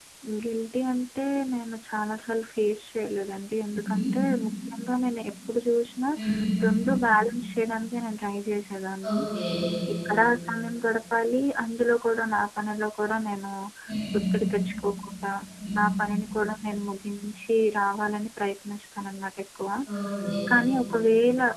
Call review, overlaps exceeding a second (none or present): none